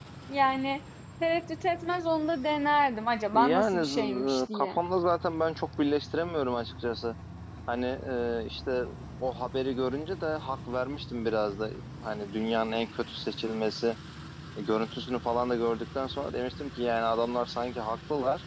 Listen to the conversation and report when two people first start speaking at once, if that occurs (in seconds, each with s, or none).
3.3 s